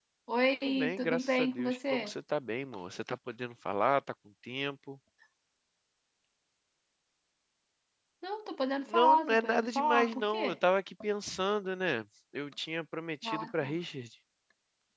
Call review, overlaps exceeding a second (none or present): present